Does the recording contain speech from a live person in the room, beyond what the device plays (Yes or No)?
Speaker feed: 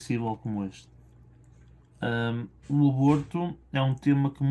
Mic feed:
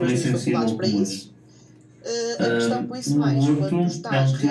Yes